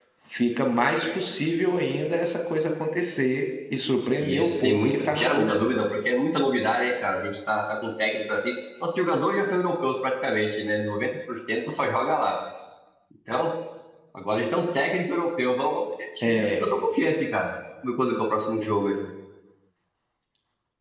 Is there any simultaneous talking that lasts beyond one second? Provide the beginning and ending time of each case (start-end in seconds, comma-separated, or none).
4.2-5.8